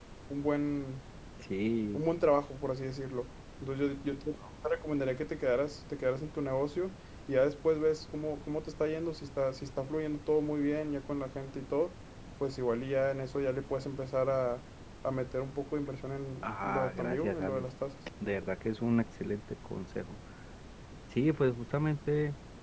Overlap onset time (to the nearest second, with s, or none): 16 s